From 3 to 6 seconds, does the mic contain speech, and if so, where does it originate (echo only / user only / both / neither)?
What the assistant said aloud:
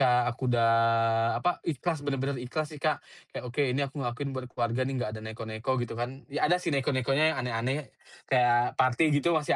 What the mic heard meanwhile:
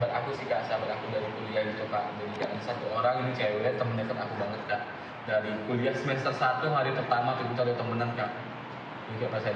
user only